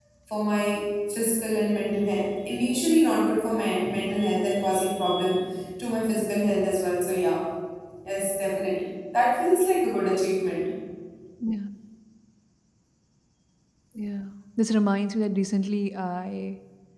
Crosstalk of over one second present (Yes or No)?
No